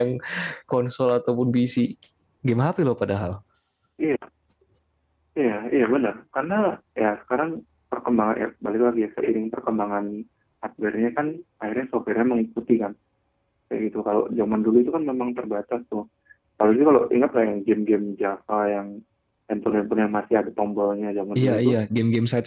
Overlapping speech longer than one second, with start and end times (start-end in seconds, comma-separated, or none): none